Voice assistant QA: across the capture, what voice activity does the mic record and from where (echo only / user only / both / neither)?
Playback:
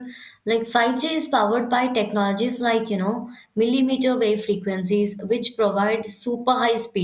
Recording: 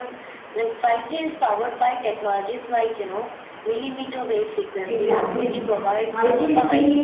both